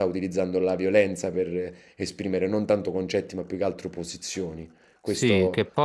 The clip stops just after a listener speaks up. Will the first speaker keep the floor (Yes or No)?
No